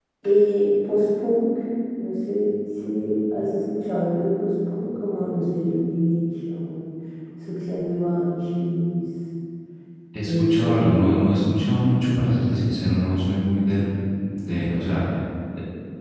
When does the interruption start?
10 s

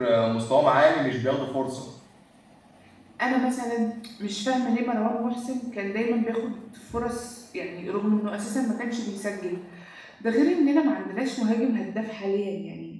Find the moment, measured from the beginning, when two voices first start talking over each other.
none

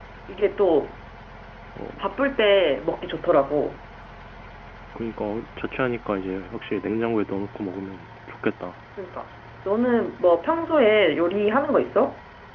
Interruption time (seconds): none

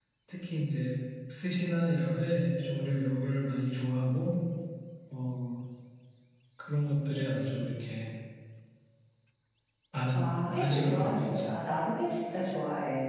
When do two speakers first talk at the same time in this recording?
10 s

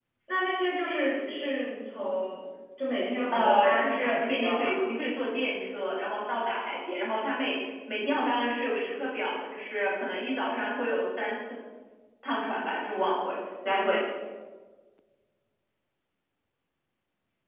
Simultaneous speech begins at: 3 s

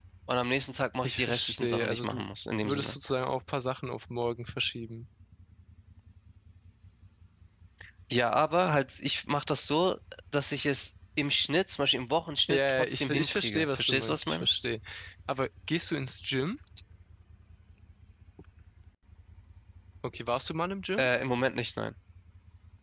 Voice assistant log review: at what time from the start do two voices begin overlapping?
1 s

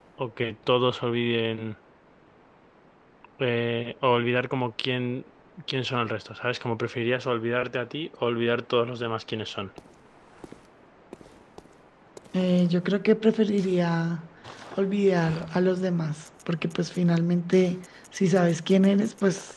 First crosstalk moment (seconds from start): none

